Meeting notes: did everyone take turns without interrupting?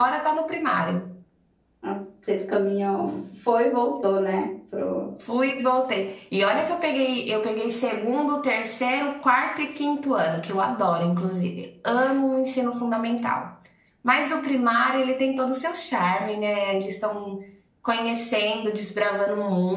Yes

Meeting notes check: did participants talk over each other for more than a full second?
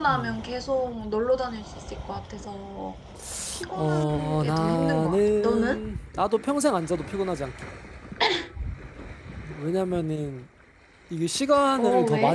Yes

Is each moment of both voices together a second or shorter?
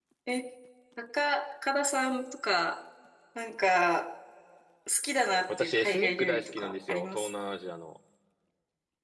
No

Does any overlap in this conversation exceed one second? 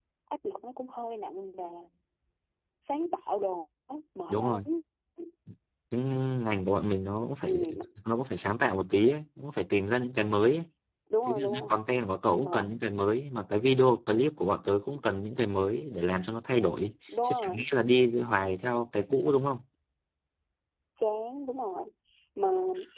No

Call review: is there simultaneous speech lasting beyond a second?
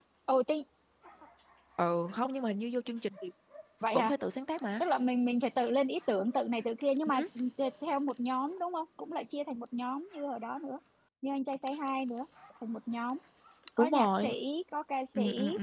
No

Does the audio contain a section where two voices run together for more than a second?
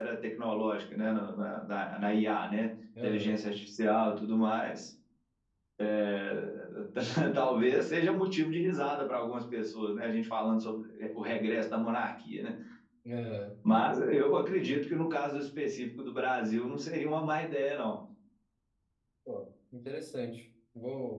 No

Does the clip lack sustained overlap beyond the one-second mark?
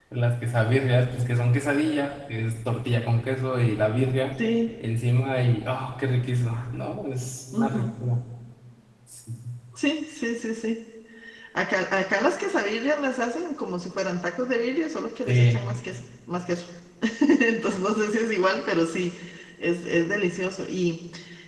Yes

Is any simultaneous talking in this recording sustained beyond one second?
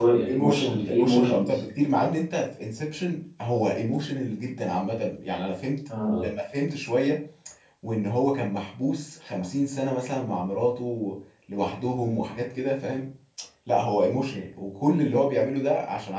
Yes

